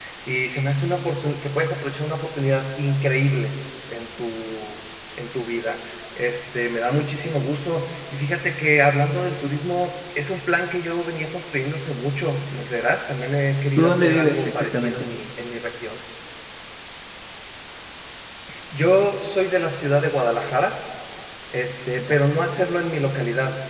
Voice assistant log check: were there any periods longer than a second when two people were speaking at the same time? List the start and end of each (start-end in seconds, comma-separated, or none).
13.8-15.0